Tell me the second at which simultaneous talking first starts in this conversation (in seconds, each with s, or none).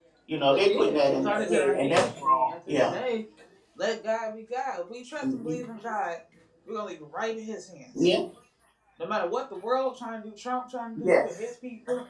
0.5 s